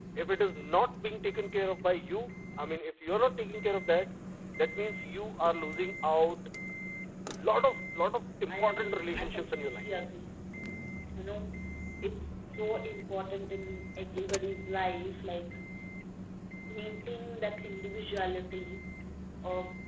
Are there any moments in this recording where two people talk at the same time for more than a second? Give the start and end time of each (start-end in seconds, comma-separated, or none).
8.5-9.9